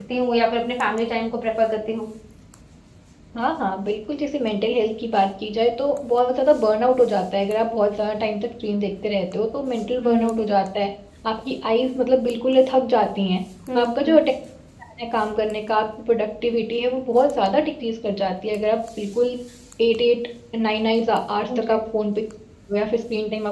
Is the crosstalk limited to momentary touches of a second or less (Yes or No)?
Yes